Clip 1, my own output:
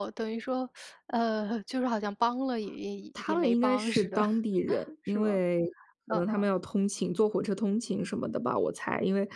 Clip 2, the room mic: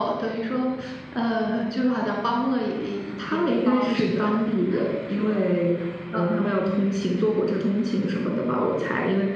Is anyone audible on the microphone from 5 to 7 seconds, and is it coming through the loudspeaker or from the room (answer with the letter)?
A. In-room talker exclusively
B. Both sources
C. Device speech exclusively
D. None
C